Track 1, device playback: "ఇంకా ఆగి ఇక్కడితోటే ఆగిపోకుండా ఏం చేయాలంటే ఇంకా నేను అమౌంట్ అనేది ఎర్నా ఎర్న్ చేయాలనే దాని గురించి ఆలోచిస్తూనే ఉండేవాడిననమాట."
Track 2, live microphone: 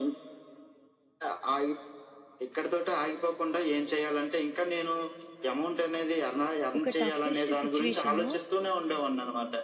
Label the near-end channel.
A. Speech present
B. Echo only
A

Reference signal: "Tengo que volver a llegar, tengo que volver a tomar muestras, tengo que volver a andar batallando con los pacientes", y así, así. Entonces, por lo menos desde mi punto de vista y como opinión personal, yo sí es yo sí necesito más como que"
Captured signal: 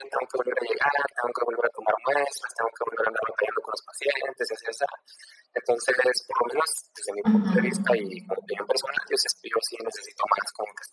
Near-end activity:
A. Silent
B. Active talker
B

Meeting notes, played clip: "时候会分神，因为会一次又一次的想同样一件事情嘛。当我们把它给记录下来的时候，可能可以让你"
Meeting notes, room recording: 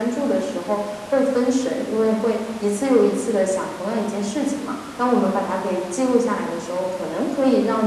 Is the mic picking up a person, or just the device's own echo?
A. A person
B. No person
B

